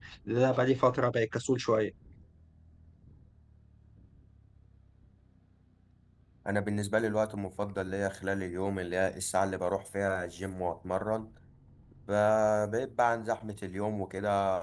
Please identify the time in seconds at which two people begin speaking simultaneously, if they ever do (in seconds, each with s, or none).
none